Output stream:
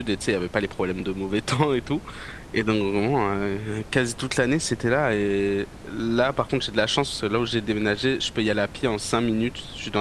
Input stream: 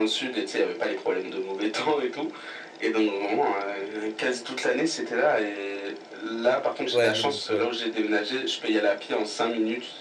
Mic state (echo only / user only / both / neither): both